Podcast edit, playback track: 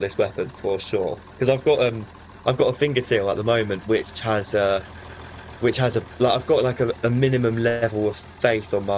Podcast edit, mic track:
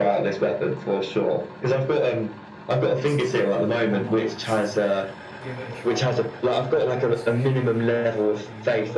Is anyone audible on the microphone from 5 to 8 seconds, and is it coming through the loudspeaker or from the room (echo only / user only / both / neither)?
both